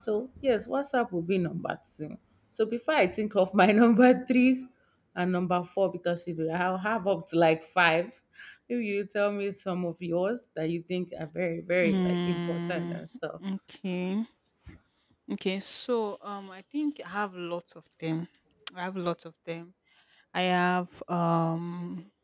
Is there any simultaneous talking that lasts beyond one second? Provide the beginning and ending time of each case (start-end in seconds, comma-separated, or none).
11.8-13.0